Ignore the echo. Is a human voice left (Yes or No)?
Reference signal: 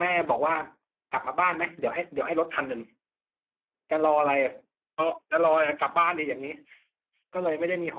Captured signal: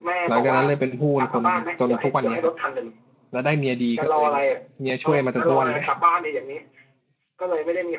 Yes